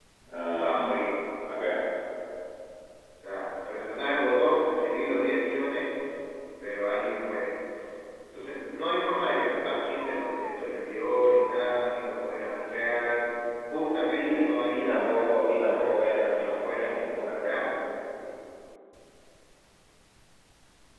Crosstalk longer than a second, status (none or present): present